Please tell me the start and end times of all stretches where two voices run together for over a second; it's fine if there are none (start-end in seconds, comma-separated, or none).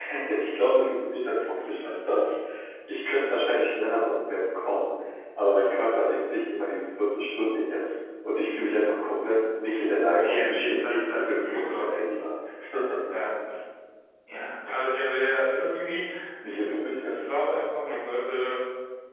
9.9-11.8